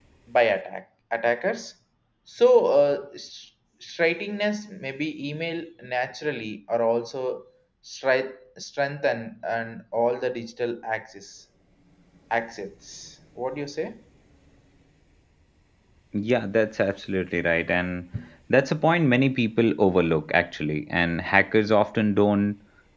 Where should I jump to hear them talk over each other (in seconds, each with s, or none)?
none